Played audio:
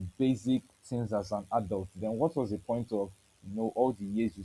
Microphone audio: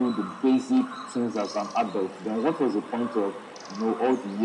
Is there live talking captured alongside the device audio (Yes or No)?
No